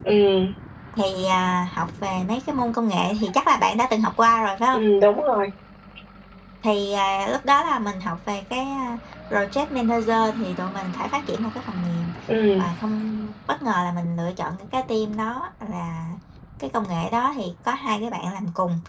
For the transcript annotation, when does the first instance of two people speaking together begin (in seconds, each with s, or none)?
none